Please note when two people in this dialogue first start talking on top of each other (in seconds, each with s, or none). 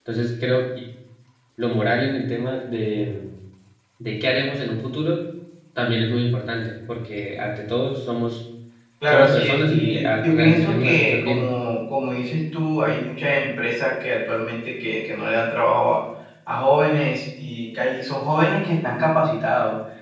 9.1 s